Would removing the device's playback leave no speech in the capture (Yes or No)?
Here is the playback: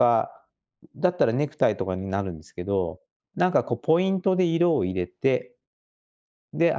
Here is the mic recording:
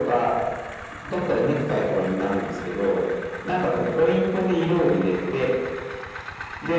Yes